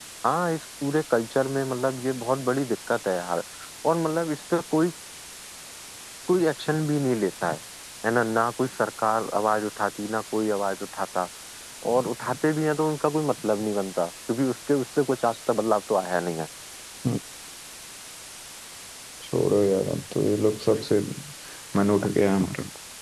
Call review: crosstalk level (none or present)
none